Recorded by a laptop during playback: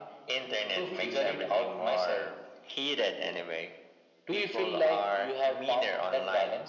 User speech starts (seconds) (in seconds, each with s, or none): none